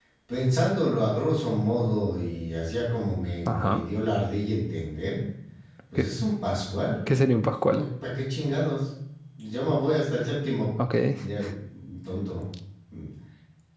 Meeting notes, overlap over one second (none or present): none